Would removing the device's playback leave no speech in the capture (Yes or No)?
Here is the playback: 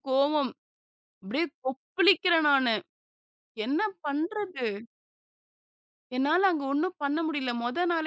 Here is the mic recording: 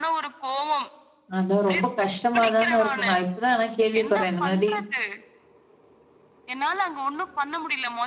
No